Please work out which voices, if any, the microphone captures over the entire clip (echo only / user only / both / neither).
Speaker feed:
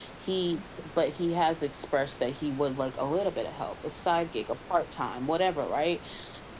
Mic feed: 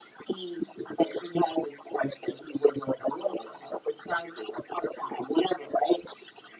echo only